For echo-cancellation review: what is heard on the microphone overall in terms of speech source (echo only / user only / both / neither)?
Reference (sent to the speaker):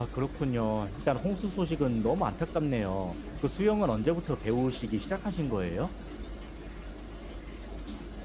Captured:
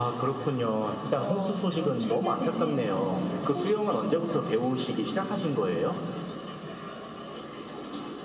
both